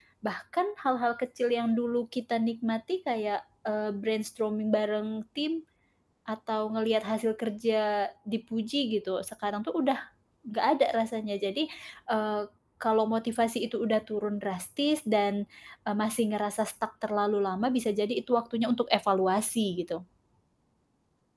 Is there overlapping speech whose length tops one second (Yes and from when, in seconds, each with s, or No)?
No